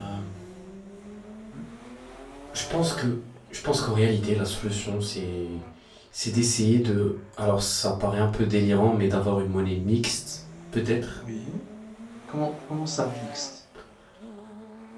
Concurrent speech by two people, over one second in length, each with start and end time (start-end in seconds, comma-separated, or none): none